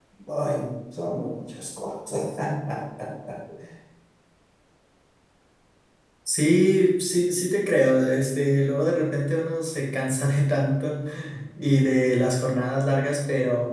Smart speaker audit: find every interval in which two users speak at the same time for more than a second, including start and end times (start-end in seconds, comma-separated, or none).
none